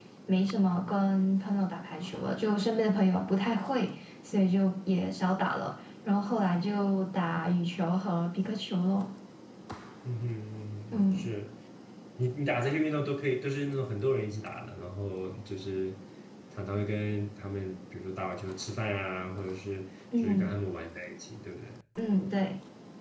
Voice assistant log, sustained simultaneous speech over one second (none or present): none